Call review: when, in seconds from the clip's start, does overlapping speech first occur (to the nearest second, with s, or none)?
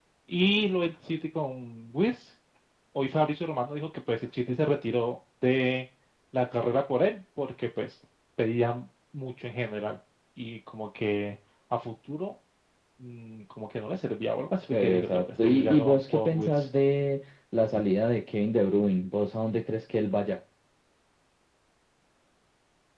15 s